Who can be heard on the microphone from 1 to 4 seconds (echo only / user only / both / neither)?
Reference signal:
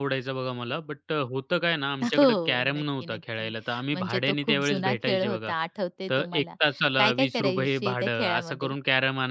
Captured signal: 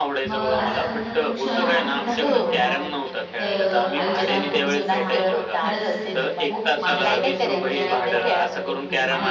both